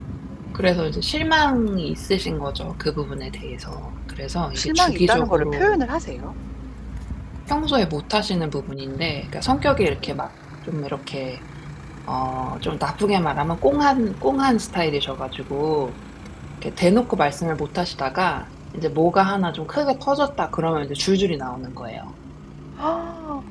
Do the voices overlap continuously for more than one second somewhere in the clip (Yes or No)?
Yes